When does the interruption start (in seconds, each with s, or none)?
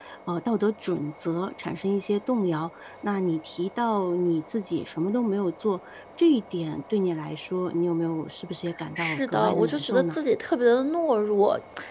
9.0 s